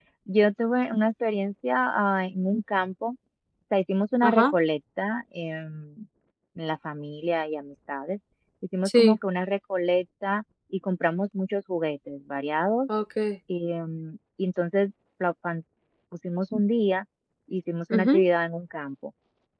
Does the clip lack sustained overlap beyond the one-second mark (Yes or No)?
Yes